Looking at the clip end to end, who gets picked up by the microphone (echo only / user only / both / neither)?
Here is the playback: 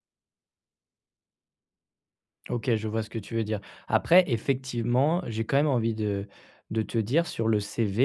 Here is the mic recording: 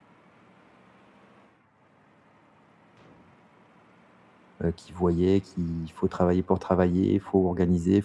user only